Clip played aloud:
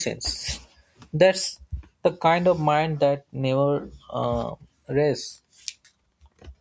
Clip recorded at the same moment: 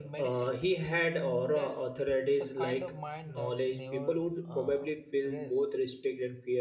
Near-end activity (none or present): present